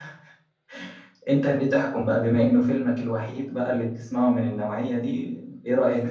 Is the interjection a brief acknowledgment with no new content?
No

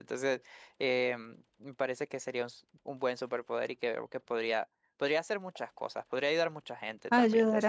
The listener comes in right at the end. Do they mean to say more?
Yes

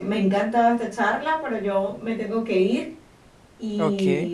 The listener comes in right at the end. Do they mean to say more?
No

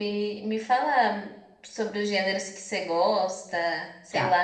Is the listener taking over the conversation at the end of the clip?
Yes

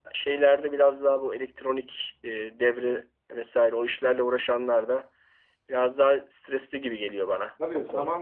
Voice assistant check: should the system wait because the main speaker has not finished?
No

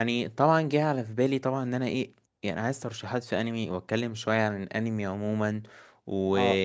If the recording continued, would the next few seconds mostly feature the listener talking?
No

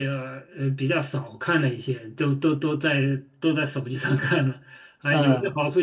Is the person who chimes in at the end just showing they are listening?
Yes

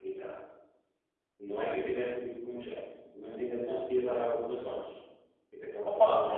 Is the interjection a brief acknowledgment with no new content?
No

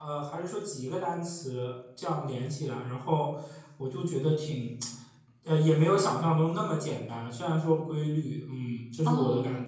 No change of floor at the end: No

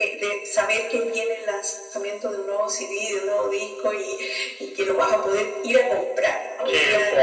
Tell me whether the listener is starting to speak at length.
Yes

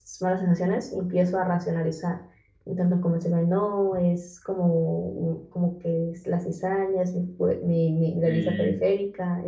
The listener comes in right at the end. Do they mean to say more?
No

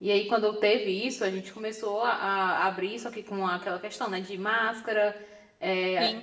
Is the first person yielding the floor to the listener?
No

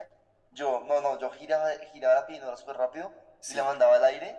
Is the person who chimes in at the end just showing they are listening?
Yes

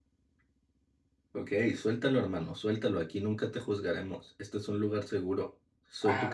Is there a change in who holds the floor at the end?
Yes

